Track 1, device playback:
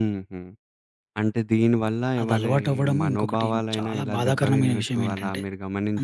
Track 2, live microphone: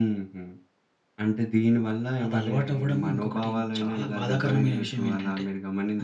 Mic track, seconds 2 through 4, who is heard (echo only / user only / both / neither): echo only